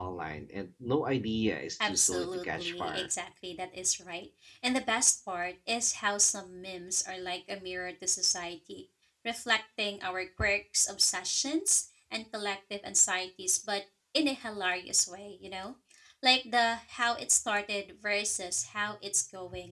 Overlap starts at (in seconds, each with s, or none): 1.8 s